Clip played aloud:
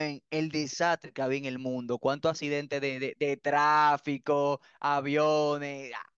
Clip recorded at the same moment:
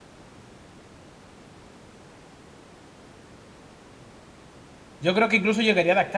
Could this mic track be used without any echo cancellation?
Yes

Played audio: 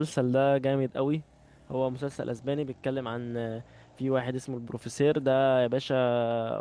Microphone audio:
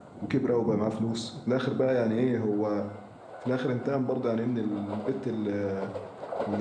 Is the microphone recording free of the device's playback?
Yes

